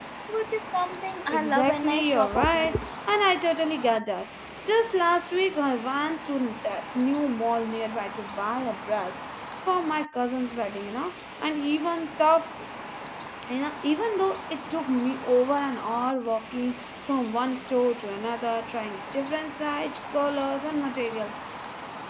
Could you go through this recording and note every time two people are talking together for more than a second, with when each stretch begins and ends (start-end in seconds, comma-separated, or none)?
1.3-2.8